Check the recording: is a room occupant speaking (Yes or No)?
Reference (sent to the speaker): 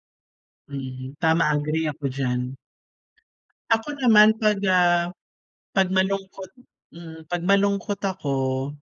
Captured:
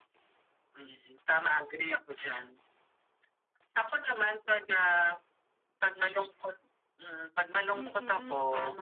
Yes